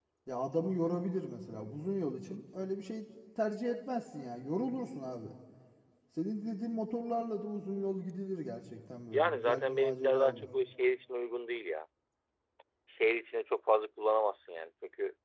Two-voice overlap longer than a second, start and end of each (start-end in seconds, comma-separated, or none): 9.1-10.5